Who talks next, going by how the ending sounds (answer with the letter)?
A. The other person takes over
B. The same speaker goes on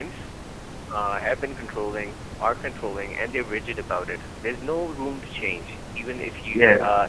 B